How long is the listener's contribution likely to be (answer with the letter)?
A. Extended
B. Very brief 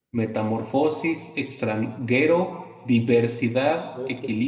B